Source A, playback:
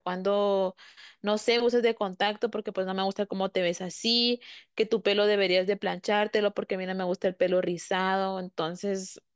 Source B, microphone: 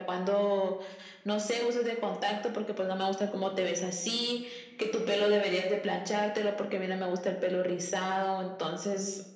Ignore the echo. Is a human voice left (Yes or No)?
No